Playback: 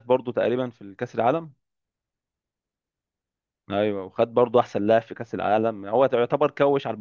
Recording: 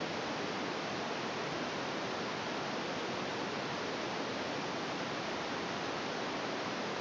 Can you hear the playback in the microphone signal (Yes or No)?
No